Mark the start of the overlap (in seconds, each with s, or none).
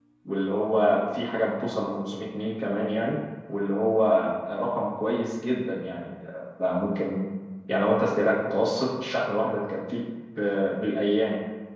none